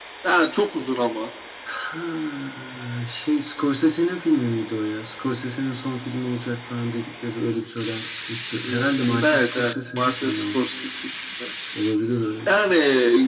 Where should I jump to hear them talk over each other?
9 s

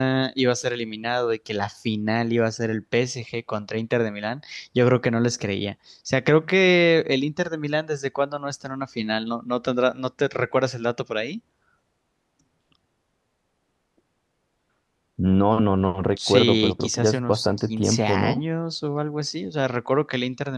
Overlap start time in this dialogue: 16 s

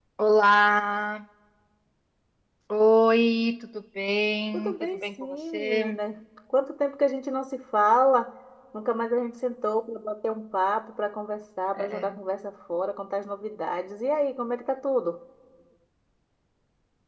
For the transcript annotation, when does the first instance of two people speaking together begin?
5 s

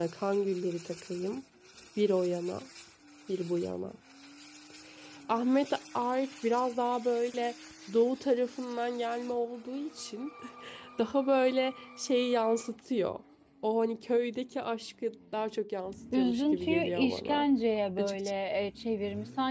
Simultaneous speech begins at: 16 s

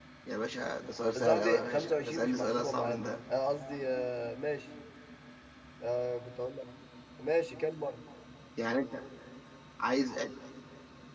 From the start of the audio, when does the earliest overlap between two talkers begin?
1 s

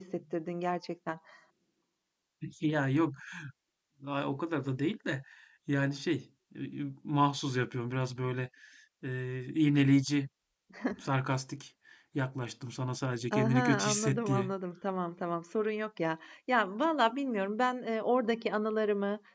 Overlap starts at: 13 s

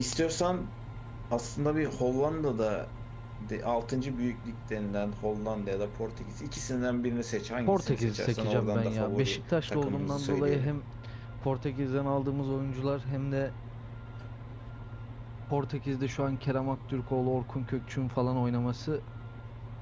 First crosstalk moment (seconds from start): 8 s

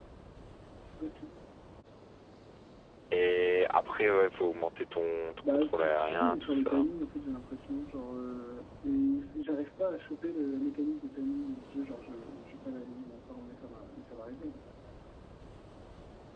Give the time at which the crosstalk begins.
5 s

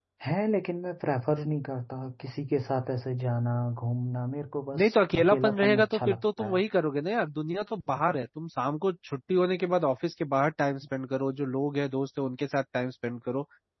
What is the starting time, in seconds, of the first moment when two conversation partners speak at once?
5 s

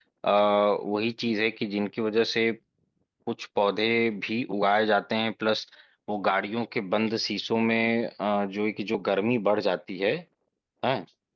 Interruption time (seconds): none

